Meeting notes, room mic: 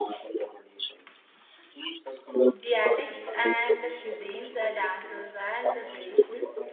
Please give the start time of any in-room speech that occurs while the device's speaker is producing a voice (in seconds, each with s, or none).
2.6 s